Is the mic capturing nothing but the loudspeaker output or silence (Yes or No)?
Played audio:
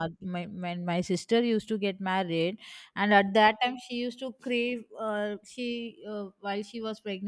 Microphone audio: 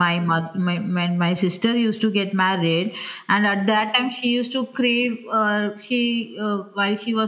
Yes